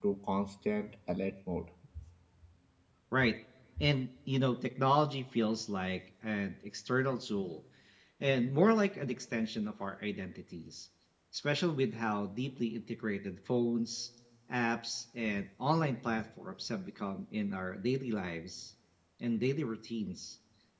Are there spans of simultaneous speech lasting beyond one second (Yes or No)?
No